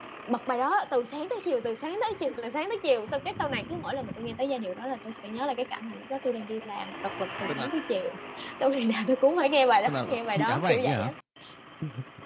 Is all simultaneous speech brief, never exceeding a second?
No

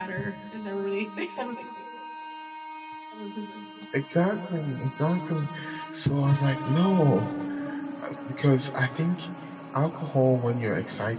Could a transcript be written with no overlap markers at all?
Yes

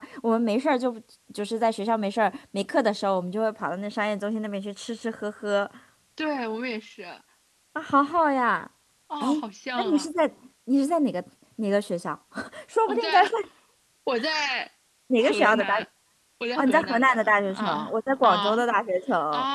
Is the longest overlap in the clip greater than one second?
Yes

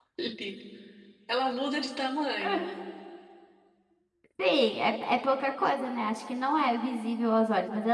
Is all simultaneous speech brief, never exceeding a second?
Yes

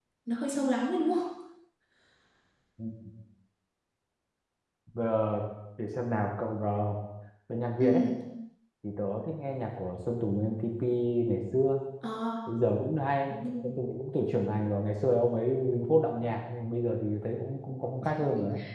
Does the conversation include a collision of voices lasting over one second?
No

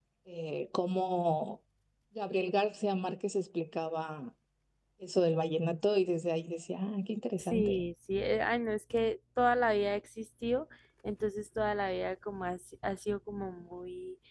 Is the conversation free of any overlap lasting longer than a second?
Yes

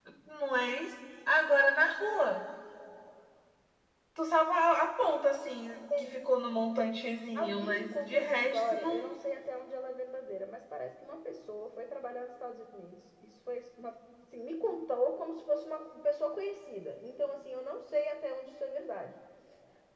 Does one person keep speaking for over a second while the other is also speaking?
Yes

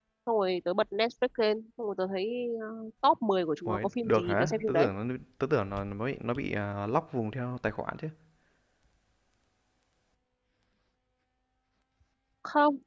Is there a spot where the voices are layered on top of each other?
Yes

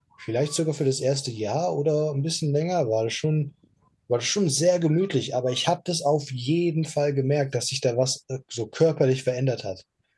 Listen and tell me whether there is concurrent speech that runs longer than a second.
No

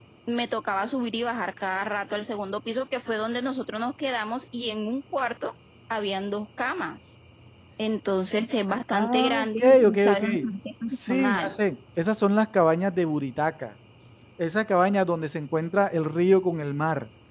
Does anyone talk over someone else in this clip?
Yes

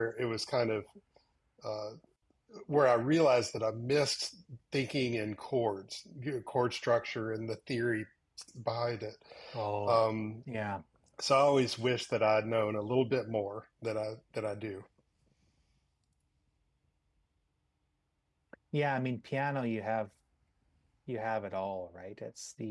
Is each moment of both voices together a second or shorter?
Yes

